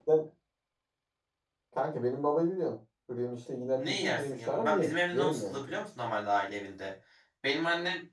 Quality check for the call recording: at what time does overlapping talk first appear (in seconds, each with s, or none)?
3.7 s